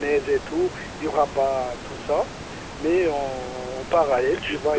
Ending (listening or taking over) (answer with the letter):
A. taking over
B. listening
B